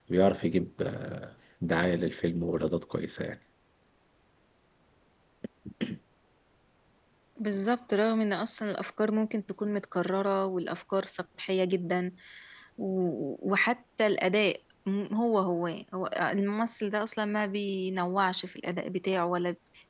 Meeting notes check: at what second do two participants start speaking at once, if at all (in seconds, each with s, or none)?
none